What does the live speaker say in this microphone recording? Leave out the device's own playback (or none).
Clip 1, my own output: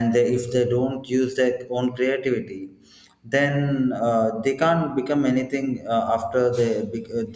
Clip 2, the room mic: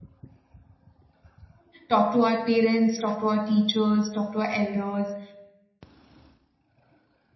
talk to our parents talk to our teachers talk to our elders